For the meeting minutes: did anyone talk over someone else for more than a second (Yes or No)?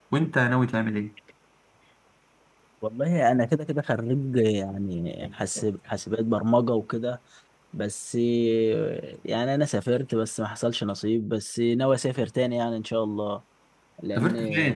No